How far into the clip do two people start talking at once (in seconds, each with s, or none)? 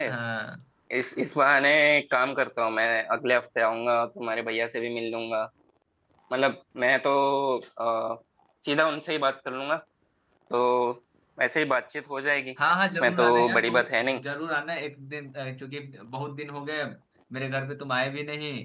12.9 s